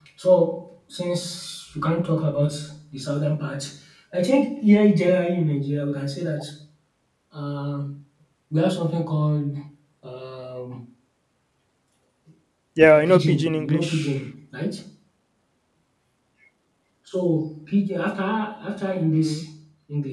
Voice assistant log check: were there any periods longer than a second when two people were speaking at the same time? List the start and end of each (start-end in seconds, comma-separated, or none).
12.9-14.1